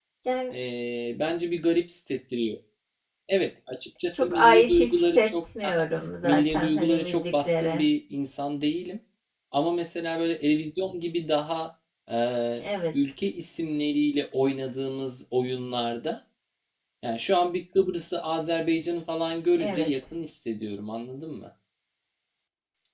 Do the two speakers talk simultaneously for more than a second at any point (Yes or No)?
Yes